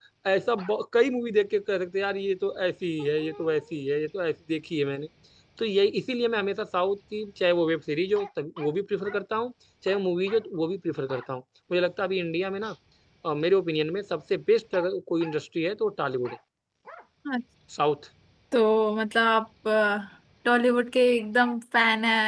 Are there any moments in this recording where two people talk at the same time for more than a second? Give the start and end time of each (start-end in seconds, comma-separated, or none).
none